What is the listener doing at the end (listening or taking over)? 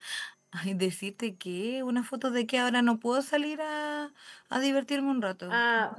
taking over